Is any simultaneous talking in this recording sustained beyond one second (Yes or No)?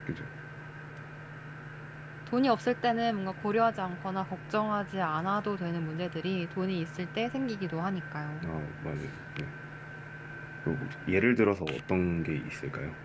No